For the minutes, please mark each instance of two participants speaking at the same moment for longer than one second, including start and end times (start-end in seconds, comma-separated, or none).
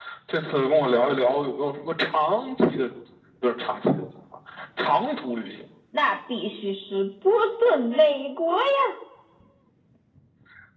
none